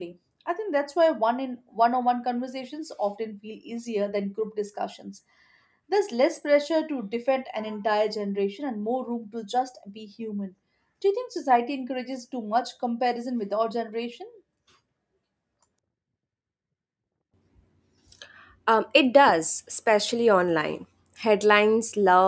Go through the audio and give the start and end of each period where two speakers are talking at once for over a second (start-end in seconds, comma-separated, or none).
none